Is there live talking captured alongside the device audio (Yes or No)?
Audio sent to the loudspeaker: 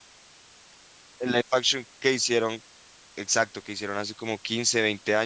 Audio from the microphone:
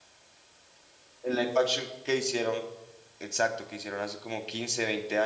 No